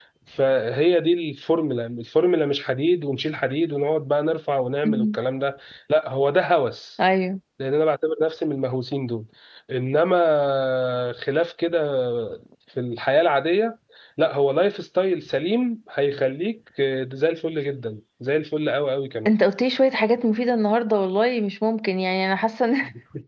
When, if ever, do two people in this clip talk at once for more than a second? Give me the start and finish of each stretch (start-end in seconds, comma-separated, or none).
none